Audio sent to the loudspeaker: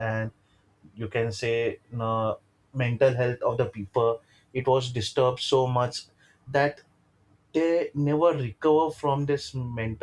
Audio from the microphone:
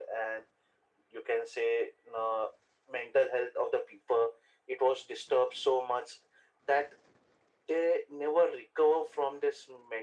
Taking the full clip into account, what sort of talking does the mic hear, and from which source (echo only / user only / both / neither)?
echo only